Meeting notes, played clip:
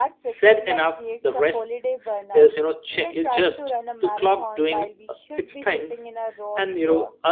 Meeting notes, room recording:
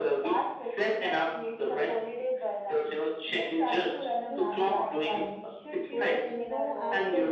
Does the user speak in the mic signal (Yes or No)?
Yes